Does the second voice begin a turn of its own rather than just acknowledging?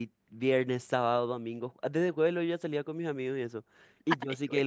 No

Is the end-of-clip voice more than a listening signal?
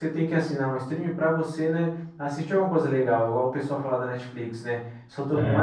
No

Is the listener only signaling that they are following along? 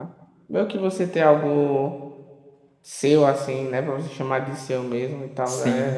No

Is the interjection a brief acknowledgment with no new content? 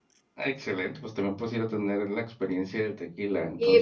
No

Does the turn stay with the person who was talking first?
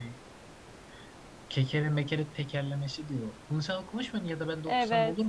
No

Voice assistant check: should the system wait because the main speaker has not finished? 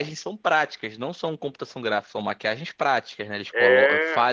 Yes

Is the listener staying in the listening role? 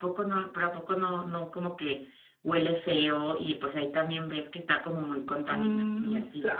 No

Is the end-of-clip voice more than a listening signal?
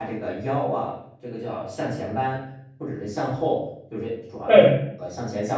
No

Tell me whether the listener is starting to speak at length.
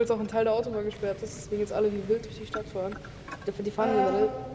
No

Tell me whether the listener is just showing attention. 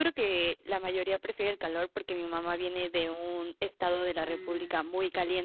Yes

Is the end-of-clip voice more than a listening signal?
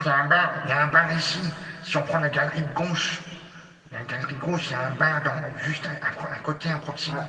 Yes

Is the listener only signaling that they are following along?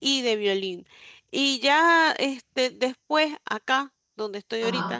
Yes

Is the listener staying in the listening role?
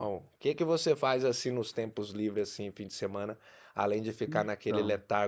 Yes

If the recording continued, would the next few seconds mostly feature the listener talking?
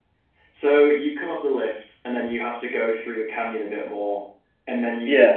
No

